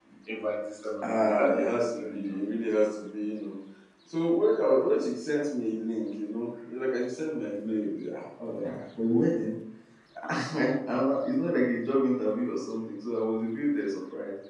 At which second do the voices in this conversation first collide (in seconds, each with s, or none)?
1.0 s